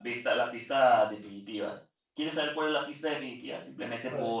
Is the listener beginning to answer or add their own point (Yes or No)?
Yes